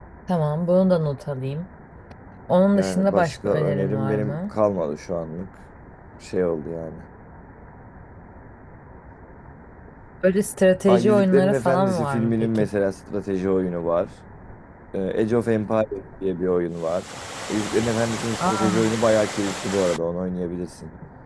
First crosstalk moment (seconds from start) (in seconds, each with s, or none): 2.8 s